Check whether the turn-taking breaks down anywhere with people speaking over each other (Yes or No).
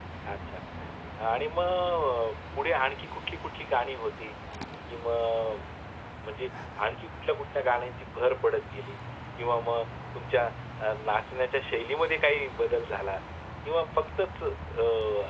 No